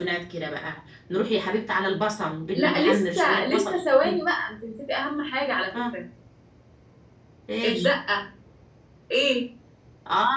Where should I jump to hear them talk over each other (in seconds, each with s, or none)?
2.5 s